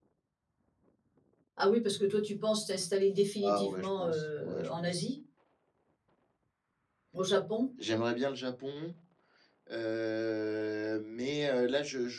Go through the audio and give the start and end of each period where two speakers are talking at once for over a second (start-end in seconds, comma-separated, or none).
3.5-5.0